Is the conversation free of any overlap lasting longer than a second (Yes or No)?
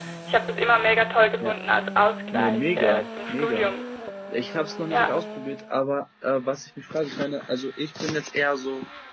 No